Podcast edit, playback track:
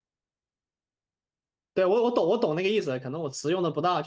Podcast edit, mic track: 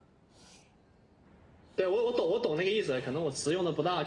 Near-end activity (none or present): none